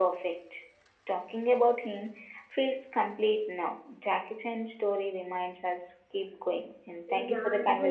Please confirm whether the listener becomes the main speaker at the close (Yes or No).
Yes